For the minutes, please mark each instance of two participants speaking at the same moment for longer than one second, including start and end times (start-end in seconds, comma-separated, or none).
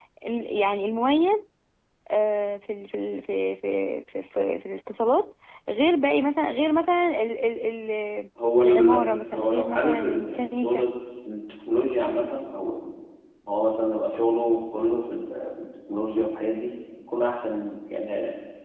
8.6-10.8